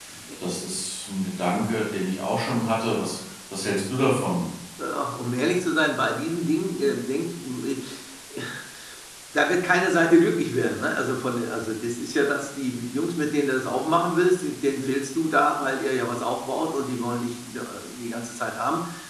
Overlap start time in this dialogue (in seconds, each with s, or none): none